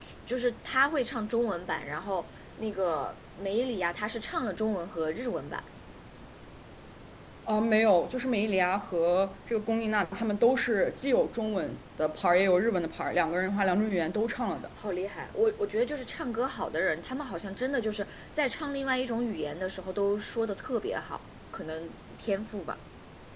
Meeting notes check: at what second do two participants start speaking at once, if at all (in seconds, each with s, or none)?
none